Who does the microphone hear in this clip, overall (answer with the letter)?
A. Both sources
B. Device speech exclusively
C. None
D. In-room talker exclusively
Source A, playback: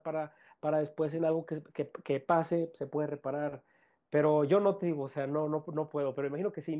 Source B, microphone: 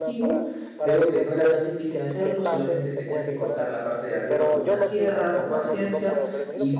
A